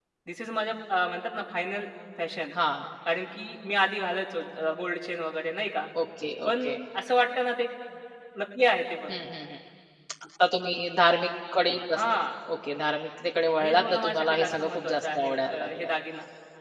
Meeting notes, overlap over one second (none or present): present